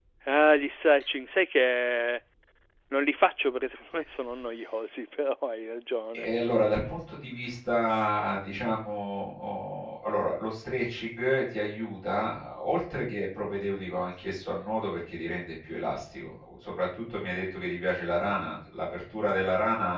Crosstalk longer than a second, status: none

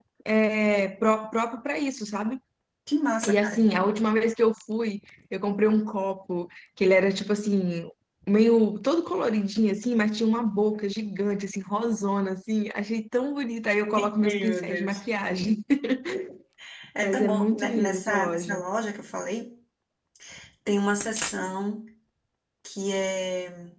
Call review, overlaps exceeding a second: present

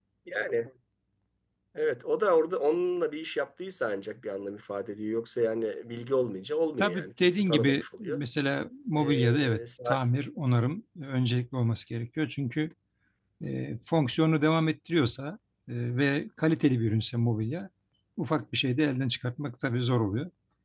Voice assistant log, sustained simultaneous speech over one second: present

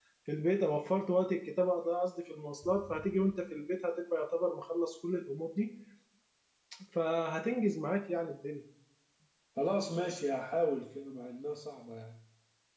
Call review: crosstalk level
none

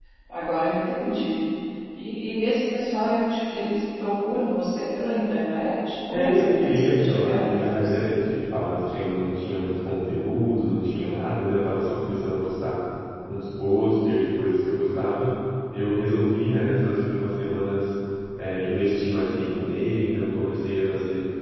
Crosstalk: present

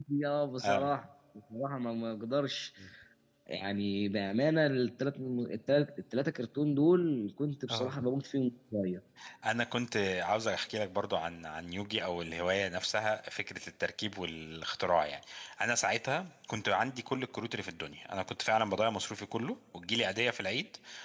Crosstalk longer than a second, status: none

